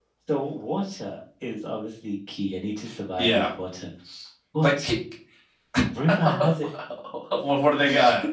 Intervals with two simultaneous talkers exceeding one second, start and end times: none

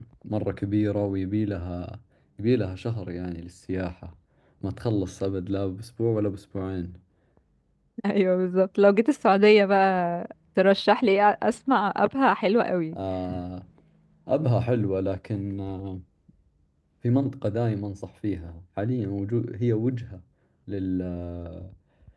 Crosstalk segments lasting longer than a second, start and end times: none

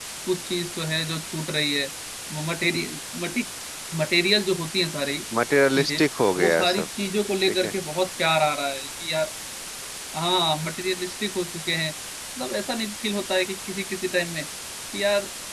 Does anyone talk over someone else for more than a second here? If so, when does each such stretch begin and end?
none

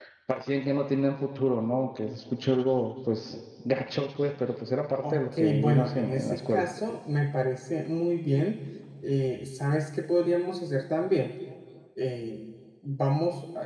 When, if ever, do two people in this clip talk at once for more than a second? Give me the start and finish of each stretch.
5.0-6.7

